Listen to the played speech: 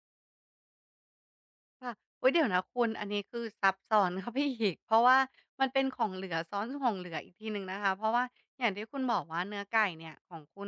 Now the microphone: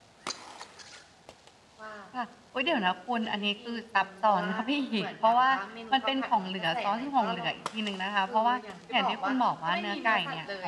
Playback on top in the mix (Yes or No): Yes